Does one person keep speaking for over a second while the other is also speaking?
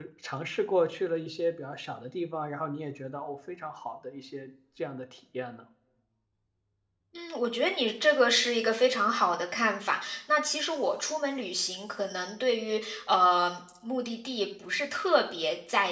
No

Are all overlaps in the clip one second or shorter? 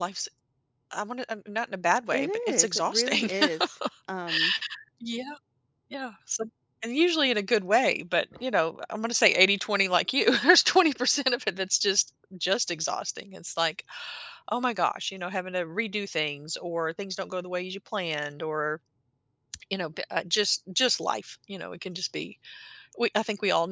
No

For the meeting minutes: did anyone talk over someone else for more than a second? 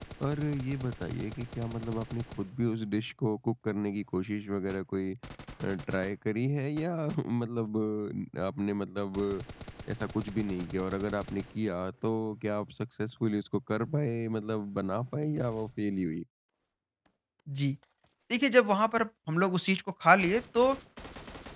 No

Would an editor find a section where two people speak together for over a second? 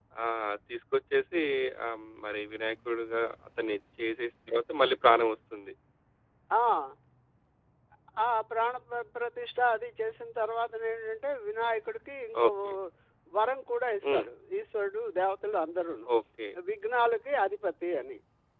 No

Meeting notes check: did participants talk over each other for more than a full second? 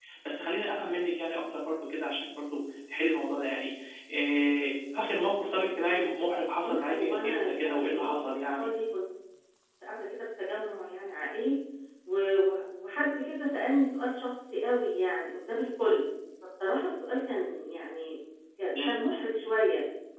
Yes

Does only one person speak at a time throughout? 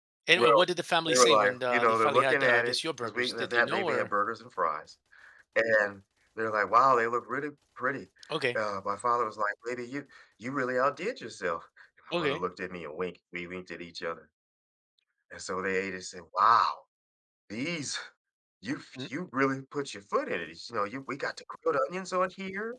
No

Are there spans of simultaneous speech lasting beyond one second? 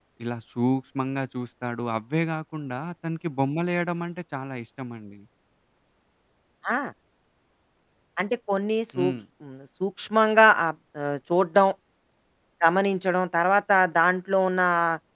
No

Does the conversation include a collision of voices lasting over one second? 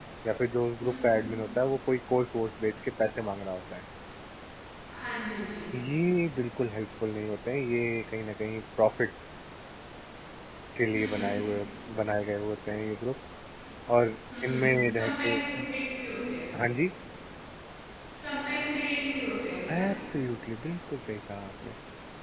Yes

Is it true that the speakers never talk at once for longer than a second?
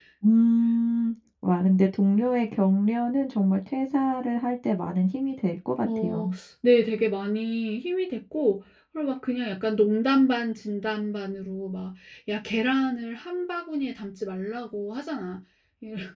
Yes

